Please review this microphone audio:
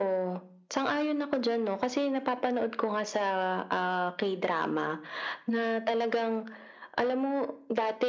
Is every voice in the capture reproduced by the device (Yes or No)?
Yes